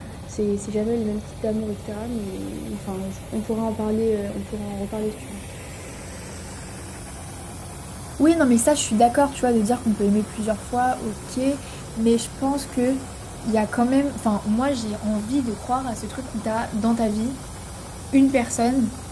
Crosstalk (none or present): none